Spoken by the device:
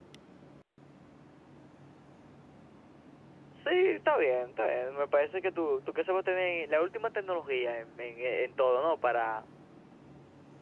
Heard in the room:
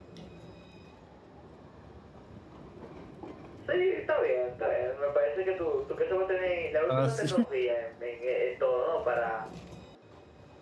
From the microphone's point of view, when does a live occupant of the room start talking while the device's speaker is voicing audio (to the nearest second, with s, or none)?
7 s